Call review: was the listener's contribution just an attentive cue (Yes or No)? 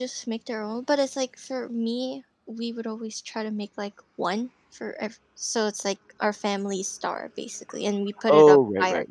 No